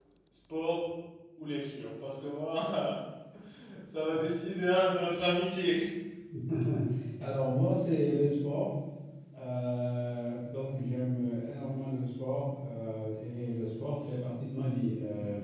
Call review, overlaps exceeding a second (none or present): none